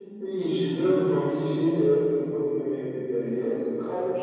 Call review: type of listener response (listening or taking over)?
taking over